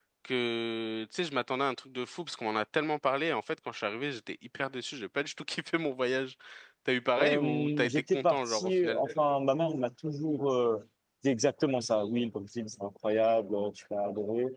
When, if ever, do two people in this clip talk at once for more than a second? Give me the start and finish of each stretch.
7.2-9.0

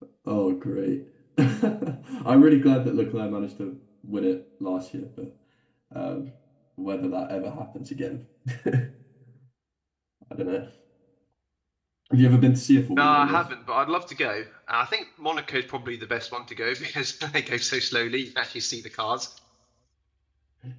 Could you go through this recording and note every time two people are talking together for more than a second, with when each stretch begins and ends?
none

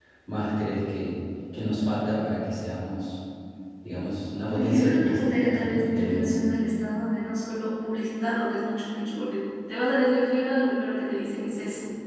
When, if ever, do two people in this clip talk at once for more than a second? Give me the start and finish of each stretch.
4.6-6.5

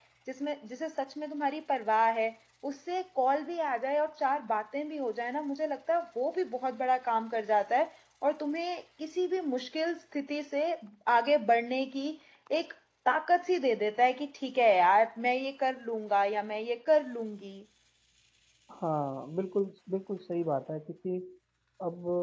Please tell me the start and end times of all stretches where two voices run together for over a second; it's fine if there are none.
none

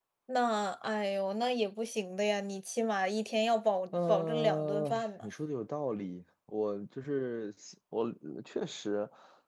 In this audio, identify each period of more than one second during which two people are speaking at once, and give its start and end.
3.9-5.3

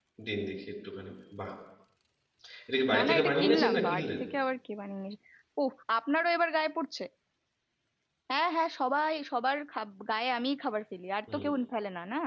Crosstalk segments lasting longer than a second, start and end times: 2.9-4.2

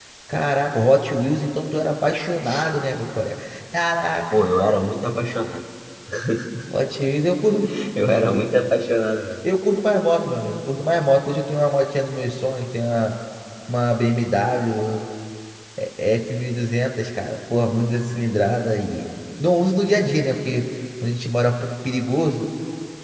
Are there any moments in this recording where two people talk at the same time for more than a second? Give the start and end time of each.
none

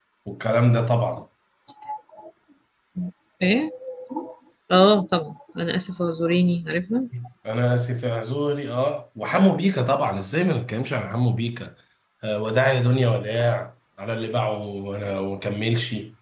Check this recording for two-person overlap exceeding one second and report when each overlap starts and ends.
none

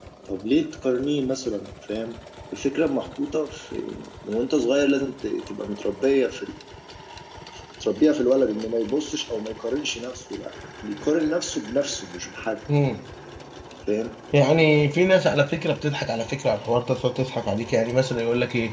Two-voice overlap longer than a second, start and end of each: none

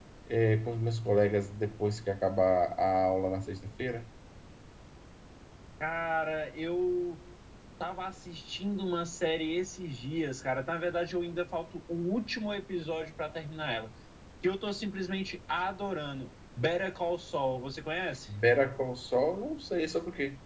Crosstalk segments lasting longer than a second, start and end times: none

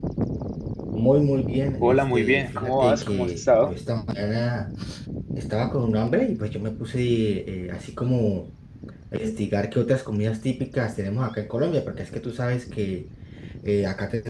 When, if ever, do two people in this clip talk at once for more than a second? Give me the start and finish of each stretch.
1.8-3.7

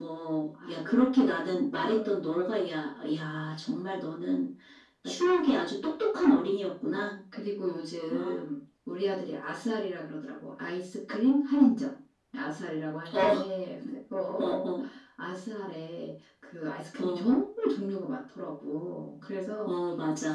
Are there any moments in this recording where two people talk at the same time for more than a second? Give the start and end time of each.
none

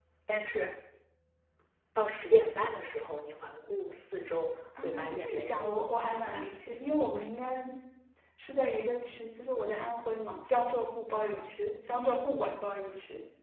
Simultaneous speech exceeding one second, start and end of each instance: 4.8-6.5

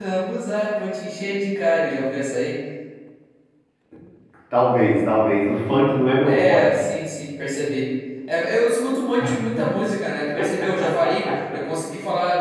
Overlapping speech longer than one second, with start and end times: none

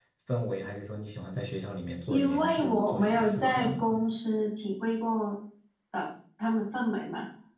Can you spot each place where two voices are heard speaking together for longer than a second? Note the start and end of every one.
2.1-4.0

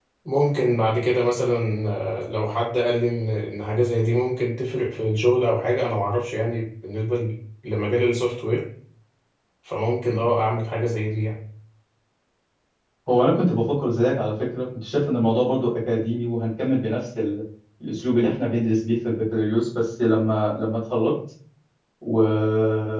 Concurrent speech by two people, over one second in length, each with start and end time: none

